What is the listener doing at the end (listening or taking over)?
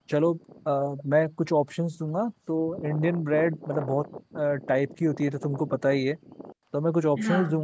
listening